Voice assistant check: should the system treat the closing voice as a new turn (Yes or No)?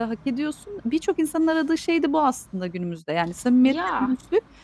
No